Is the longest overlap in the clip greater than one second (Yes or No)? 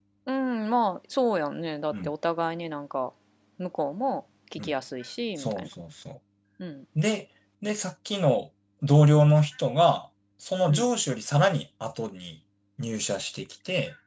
No